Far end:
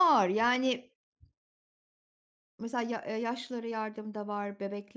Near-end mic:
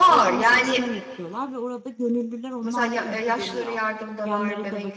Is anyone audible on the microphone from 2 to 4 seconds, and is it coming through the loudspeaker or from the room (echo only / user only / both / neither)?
both